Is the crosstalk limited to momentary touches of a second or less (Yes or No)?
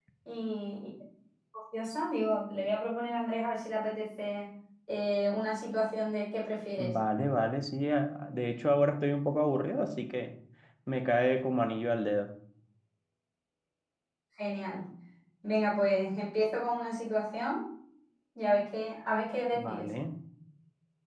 Yes